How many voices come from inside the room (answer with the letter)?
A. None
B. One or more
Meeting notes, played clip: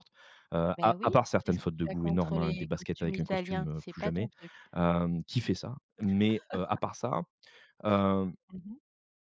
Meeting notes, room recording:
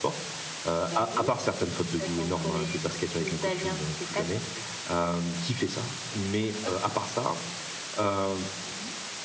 A